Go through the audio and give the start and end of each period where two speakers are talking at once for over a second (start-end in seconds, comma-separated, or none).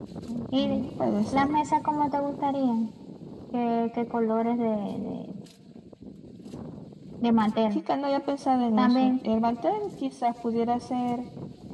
none